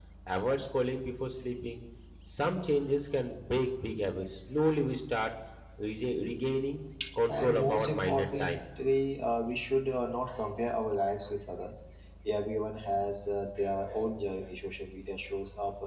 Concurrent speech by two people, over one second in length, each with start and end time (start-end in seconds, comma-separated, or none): 7.3-8.7